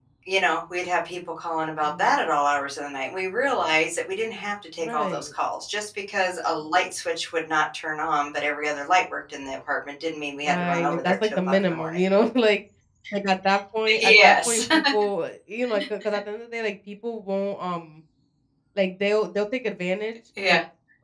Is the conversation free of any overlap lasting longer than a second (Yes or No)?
No